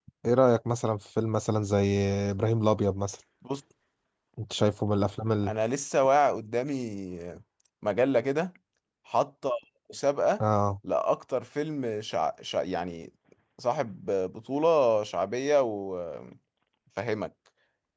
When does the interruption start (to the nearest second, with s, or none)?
none